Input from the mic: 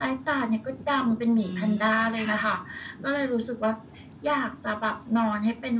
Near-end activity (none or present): present